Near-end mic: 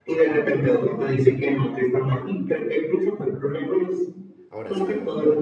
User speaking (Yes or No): Yes